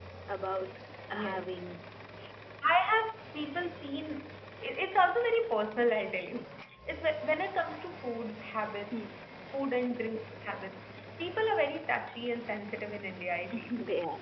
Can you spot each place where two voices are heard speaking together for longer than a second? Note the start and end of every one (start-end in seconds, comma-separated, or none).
none